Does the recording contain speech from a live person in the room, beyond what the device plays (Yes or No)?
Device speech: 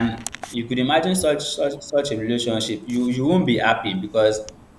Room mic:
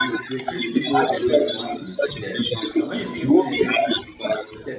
Yes